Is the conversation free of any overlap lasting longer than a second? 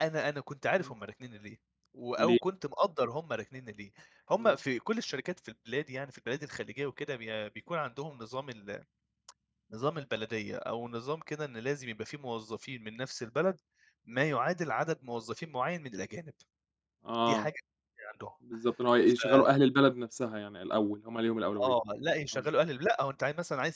Yes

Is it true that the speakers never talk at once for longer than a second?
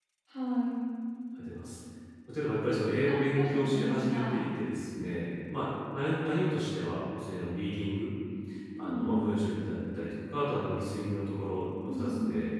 No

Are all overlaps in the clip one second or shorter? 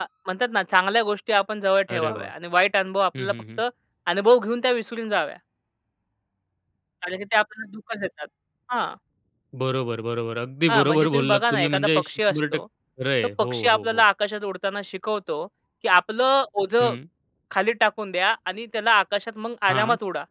No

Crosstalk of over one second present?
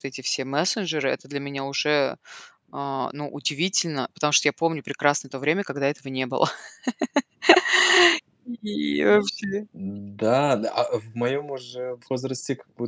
No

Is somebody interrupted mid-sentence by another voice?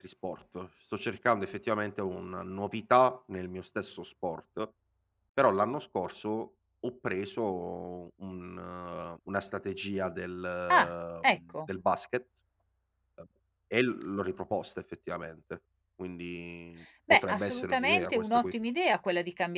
Yes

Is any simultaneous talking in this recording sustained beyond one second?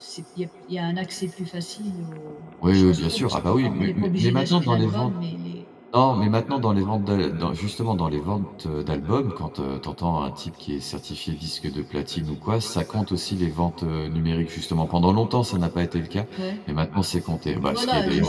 Yes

